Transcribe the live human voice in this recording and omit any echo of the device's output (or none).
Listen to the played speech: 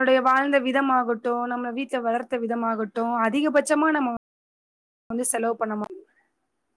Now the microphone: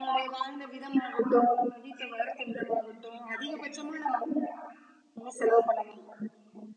none